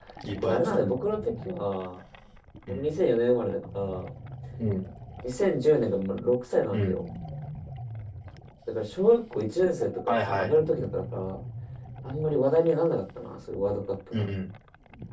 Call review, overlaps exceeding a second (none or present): none